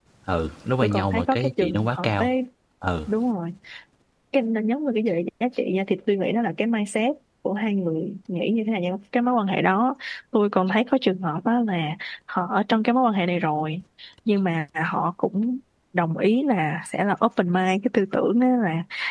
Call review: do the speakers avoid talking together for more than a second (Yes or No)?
No